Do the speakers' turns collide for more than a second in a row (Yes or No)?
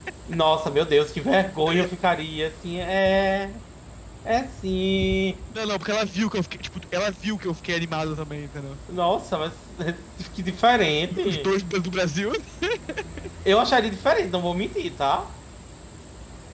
No